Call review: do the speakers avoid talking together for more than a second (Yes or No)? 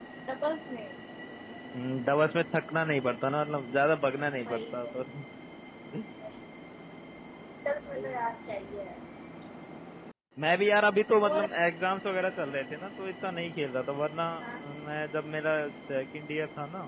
Yes